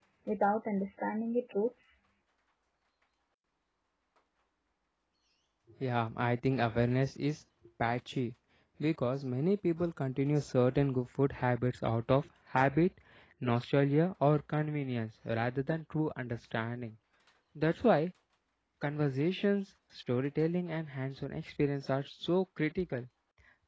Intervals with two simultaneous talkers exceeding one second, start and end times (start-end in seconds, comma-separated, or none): none